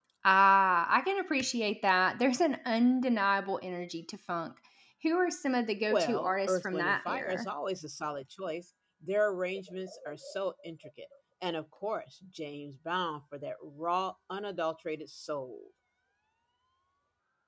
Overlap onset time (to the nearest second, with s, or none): 6 s